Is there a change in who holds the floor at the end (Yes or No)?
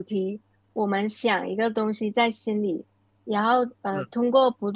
No